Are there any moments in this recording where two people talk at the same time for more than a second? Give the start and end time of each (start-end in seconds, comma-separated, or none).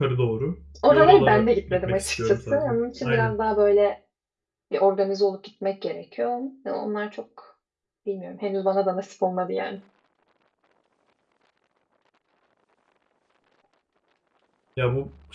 0.8-3.3